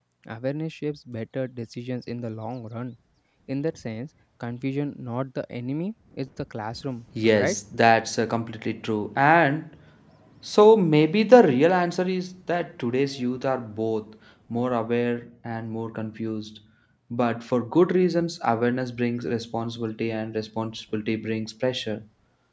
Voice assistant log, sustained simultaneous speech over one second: none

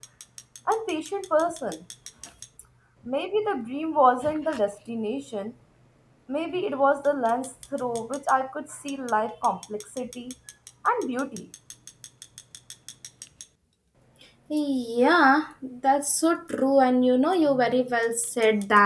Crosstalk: none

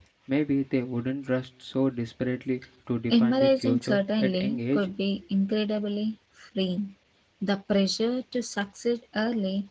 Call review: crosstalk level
present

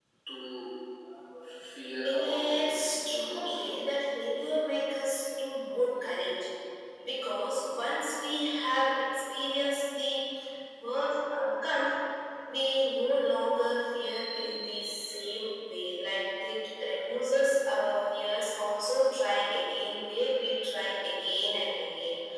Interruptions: present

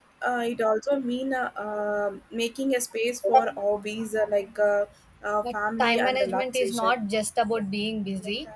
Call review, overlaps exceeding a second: present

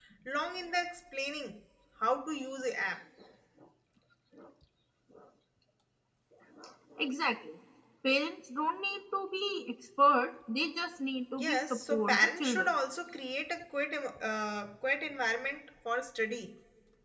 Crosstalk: present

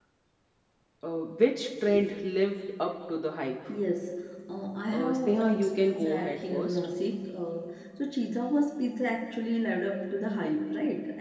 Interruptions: present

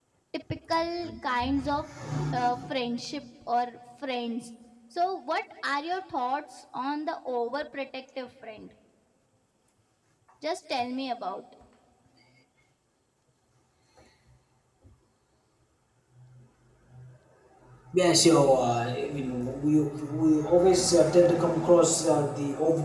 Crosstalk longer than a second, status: none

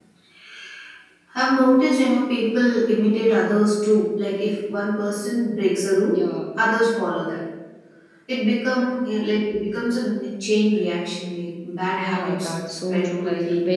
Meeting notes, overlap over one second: present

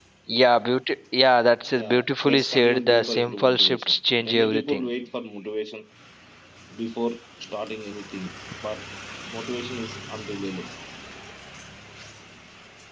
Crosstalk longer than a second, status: present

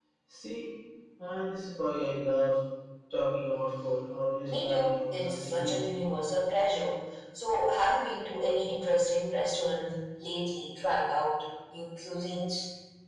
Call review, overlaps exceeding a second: present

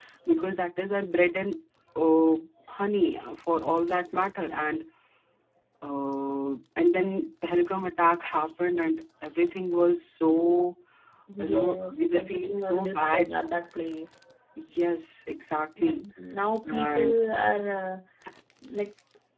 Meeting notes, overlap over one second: present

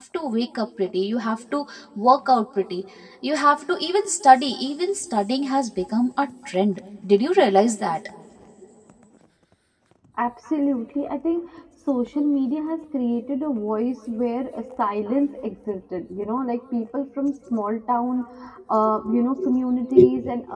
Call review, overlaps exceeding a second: none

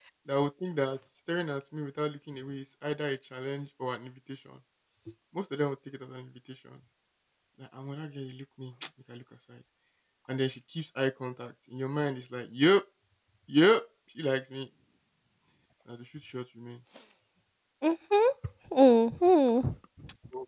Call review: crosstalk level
none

